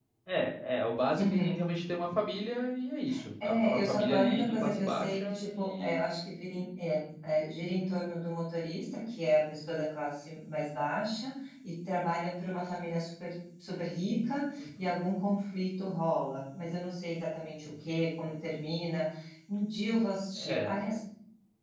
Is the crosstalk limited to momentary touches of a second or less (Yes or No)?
No